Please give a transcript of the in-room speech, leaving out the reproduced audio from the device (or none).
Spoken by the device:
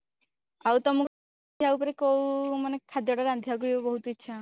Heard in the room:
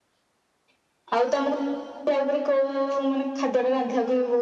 none